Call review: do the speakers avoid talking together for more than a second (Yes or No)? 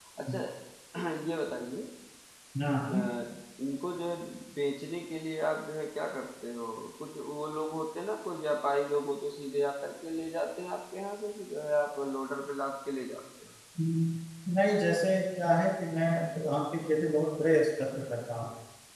Yes